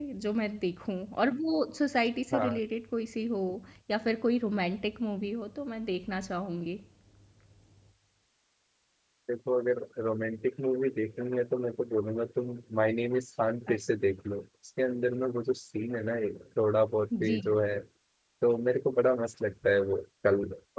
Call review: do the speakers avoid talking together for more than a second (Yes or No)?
Yes